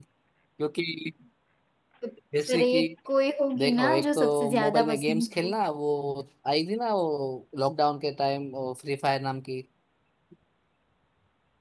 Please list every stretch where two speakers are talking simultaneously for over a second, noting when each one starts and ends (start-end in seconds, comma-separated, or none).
3.6-5.5